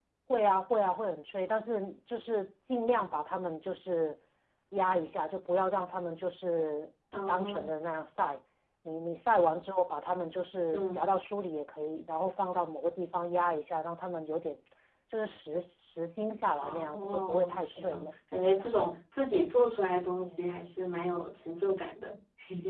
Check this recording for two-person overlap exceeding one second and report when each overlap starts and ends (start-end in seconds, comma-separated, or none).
16.6-18.1